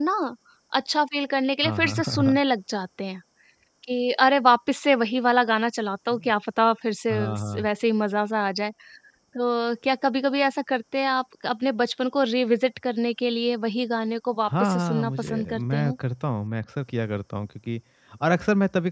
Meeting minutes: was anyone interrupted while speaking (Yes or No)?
Yes